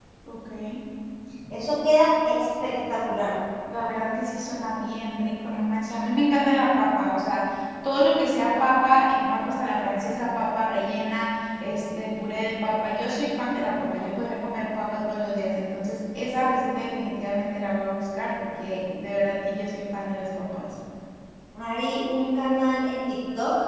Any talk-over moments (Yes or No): No